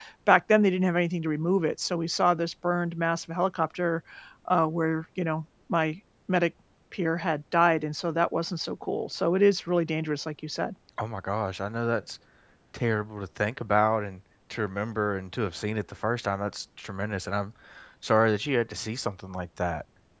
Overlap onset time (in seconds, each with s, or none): none